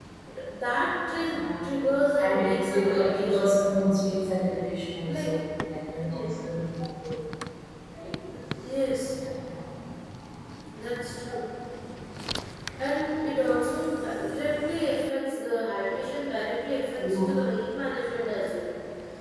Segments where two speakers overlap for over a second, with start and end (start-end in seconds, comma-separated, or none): 2.2-3.6